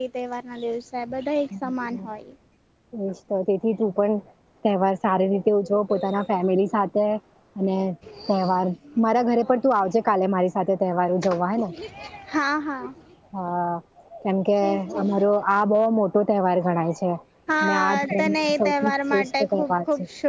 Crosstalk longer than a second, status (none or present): present